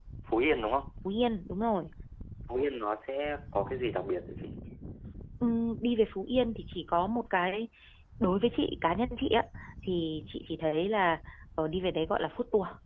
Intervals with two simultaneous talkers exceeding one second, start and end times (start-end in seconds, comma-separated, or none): none